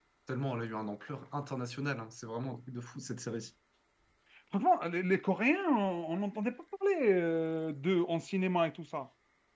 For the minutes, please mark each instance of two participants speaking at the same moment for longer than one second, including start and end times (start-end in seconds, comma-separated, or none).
none